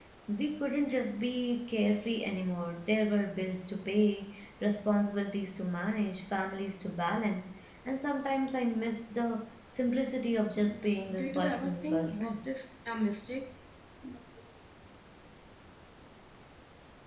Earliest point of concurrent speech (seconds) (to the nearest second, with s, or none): 11 s